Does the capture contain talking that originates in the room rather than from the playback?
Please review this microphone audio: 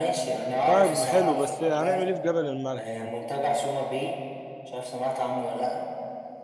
Yes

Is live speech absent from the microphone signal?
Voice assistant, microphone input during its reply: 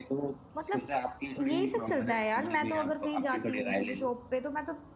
No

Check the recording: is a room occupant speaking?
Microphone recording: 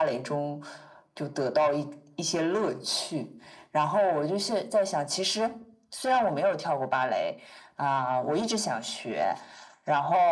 No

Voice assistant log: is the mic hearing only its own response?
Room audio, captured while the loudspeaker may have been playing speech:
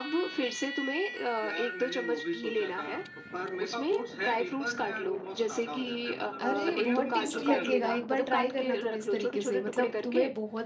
No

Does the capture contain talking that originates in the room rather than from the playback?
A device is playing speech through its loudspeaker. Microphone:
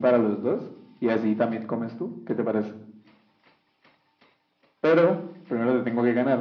No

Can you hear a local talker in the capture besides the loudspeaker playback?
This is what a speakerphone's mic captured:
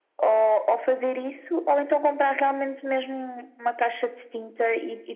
No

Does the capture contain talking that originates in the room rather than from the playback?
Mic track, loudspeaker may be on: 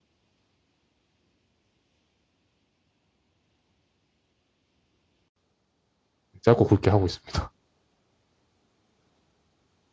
Yes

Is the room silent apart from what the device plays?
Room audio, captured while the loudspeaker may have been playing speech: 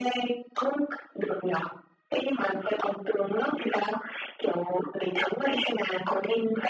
Yes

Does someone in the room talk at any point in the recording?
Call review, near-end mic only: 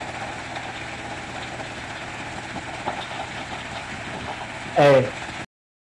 Yes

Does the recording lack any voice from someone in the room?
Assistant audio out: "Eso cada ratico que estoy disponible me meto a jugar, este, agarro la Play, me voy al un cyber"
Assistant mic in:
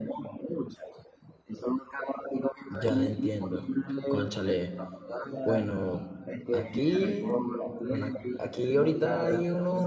No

